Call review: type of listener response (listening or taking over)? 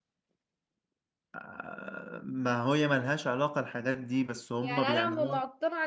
taking over